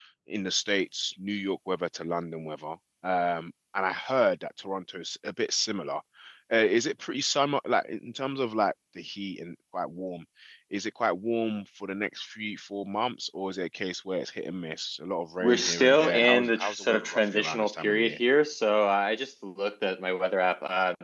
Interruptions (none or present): present